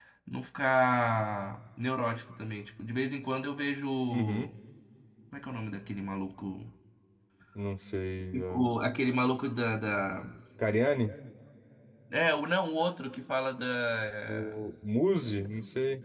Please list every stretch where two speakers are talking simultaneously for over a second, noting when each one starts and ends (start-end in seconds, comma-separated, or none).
none